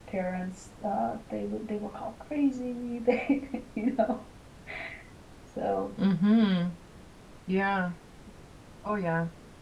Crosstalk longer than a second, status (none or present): none